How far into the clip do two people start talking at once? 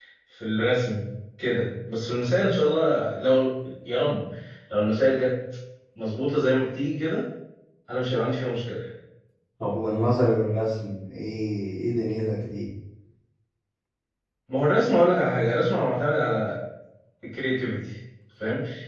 none

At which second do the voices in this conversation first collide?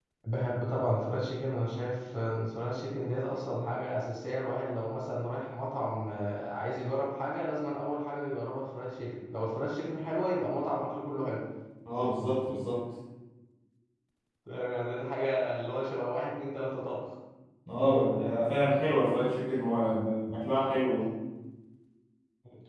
none

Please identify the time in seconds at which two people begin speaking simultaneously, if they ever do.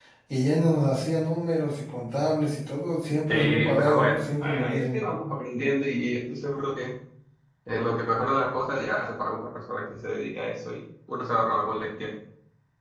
3.3 s

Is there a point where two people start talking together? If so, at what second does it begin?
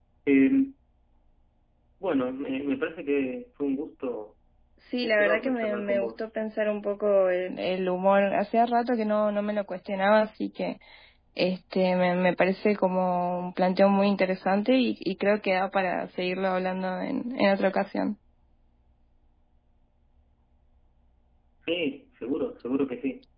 5.0 s

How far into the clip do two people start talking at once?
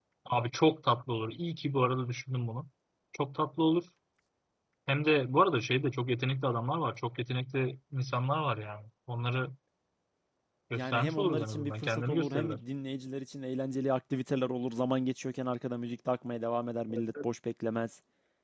10.8 s

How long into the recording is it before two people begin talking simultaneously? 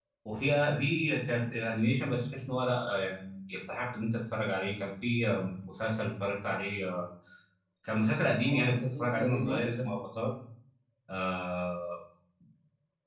8.4 s

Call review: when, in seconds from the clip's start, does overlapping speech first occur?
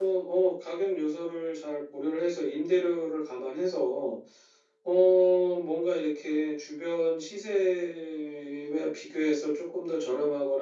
none

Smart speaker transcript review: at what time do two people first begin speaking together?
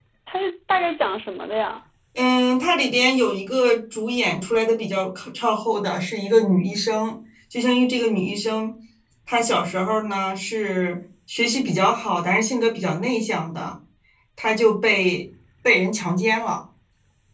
none

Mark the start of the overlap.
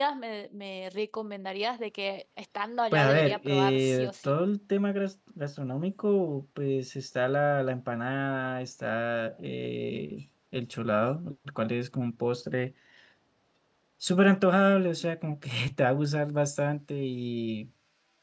2.9 s

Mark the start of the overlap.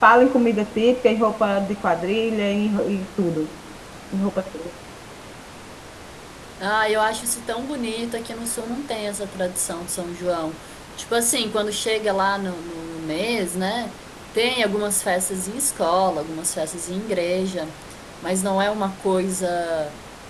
none

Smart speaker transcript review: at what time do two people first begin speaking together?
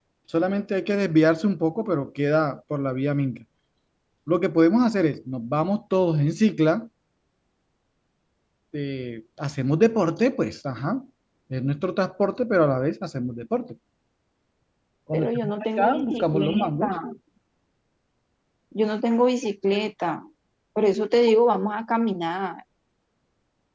15.1 s

